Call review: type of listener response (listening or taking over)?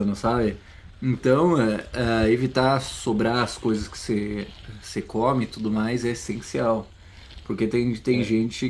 listening